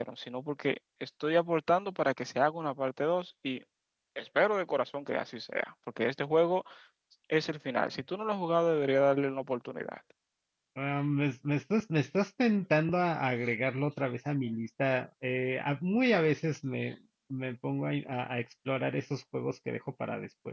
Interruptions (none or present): none